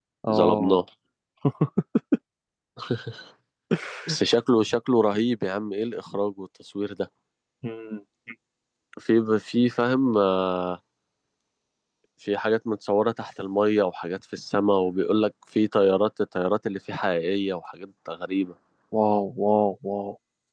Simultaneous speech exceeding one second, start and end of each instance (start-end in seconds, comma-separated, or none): none